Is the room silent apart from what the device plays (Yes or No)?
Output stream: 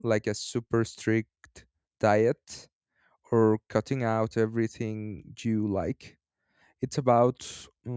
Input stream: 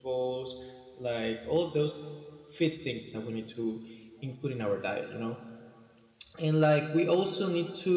No